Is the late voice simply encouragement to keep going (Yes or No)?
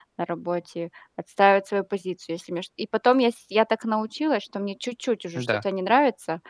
Yes